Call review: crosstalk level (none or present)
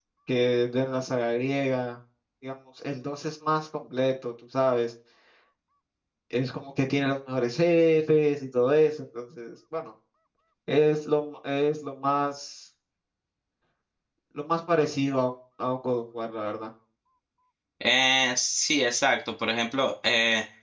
none